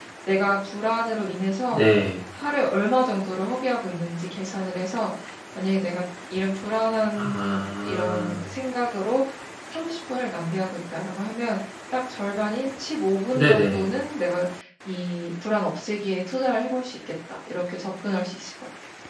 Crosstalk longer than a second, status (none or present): present